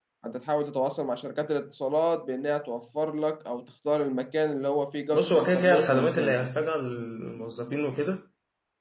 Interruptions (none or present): present